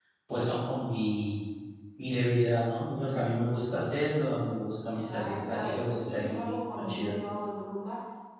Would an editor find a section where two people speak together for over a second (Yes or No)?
Yes